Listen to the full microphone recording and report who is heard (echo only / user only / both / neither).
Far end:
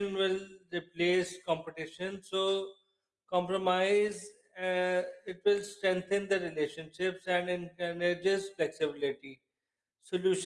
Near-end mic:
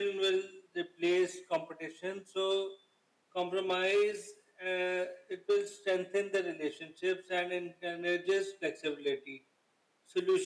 echo only